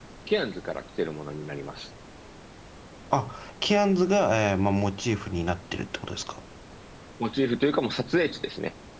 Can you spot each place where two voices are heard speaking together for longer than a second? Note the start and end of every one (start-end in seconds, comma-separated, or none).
none